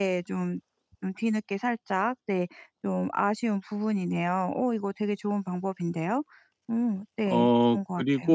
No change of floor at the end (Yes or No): No